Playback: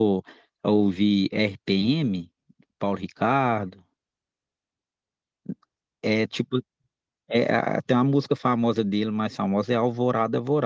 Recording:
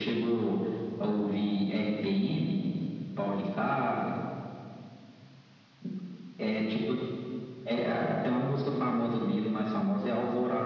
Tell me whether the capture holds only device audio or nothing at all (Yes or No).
Yes